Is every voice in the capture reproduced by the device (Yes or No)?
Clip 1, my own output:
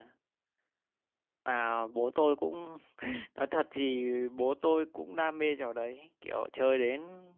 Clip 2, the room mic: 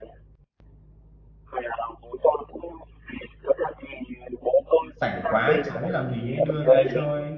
No